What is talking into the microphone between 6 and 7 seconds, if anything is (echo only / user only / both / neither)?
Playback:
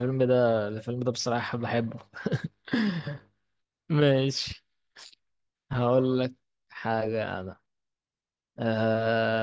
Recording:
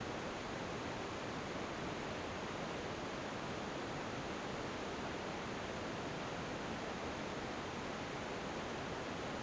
neither